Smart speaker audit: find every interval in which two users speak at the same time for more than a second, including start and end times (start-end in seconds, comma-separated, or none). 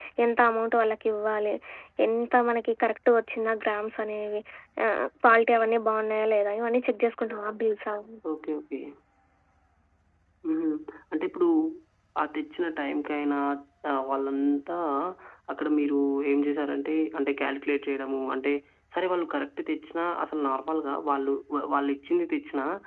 none